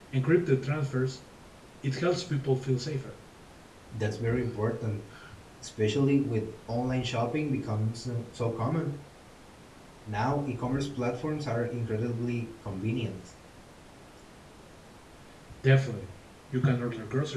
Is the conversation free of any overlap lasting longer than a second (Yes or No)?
Yes